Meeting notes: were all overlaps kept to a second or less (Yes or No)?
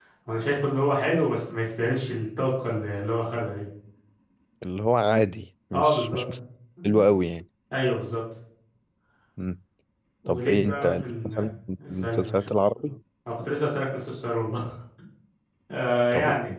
No